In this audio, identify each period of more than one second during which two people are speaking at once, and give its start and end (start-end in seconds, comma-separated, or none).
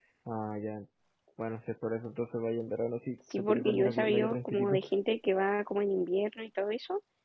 3.4-4.8